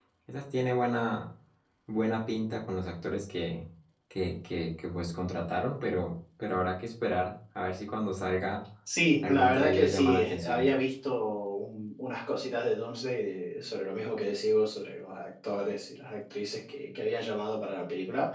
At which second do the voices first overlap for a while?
9.2 s

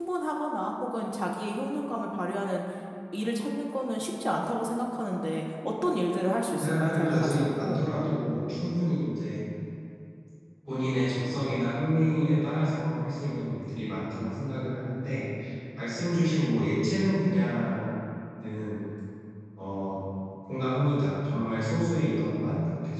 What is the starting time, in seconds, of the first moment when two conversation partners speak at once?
6.6 s

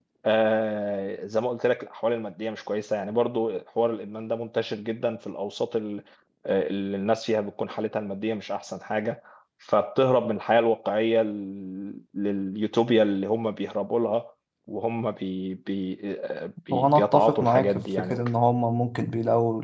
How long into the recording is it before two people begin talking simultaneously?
16.7 s

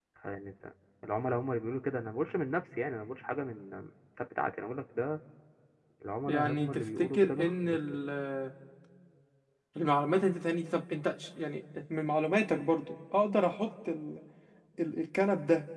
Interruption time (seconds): 6.3 s

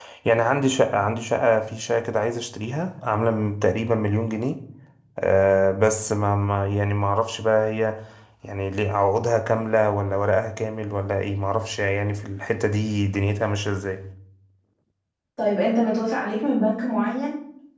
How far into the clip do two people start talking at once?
none

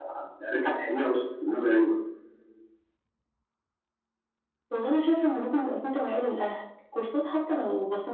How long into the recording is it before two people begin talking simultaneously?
none

